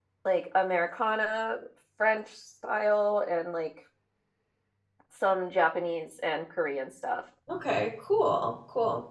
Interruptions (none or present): none